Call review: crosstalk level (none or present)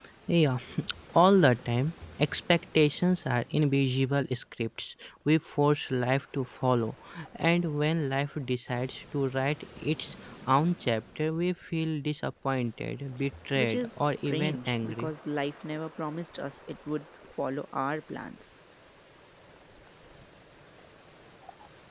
present